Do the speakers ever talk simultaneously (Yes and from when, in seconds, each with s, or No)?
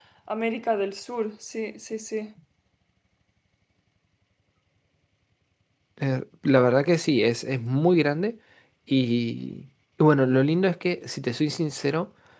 No